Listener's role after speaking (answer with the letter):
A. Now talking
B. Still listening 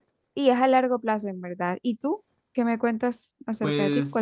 A